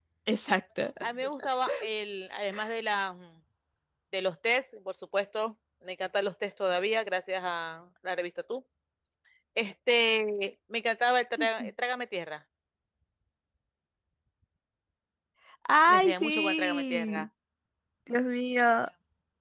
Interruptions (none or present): present